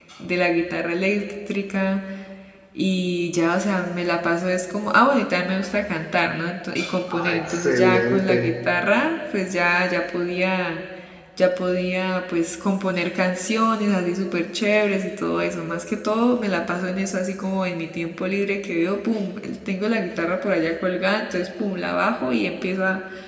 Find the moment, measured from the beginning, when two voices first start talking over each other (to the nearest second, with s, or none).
7 s